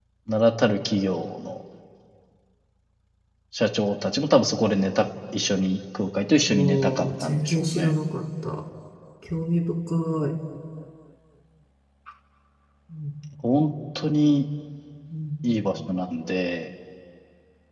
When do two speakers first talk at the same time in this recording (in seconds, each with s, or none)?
6.3 s